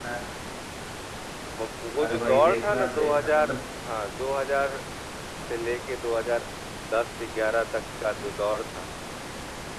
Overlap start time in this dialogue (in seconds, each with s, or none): 2.0 s